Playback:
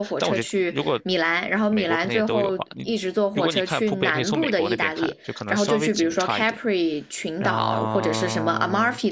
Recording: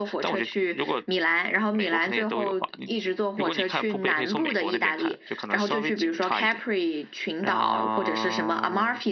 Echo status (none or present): present